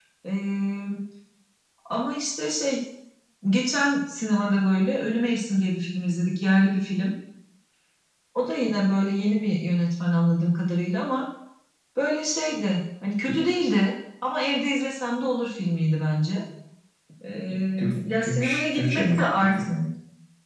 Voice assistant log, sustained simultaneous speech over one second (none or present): present